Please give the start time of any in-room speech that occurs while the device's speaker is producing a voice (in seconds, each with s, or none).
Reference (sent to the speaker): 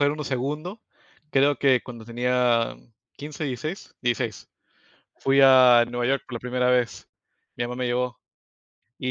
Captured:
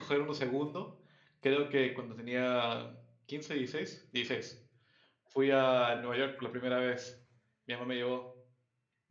none